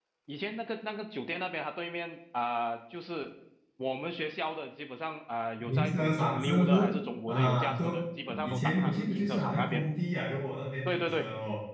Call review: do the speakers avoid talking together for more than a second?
No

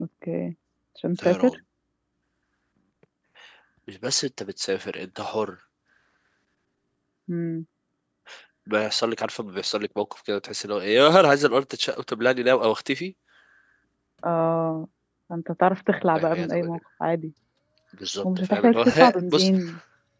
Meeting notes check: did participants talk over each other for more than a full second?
Yes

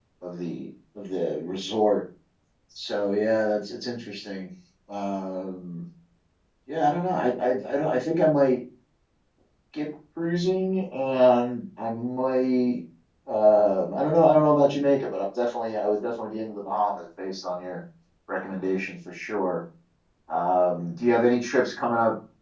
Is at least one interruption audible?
No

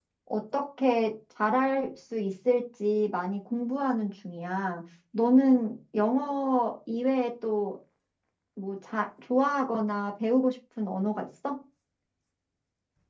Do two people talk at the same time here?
No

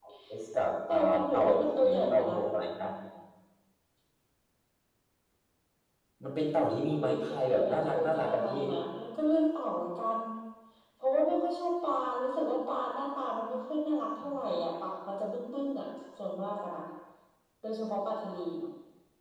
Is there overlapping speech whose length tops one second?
Yes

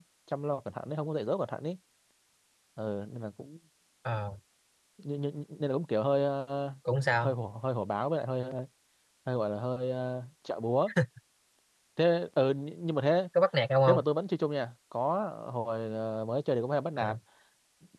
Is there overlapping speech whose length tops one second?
No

